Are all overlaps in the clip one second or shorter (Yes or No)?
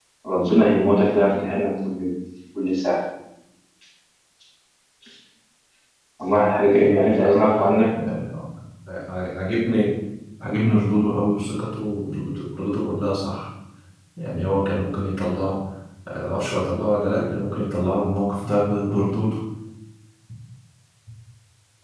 Yes